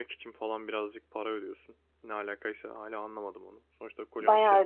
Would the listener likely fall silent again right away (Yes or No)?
No